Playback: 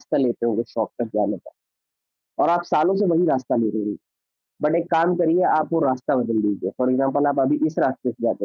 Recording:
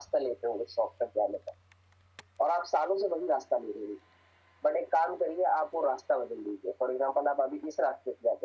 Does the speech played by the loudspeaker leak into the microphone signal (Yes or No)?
Yes